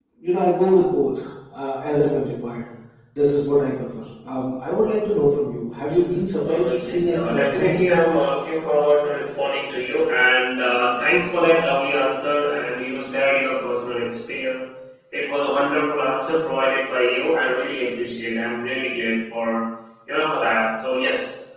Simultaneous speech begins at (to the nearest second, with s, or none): 6 s